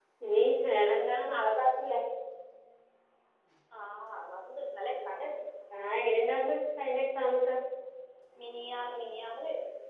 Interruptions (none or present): none